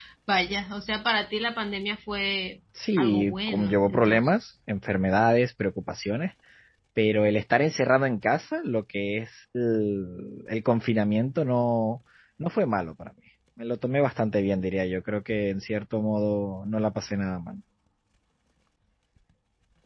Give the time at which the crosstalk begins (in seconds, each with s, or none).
2.8 s